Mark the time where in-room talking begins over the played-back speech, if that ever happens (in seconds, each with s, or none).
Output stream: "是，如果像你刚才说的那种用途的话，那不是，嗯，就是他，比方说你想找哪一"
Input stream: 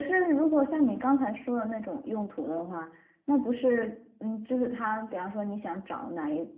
none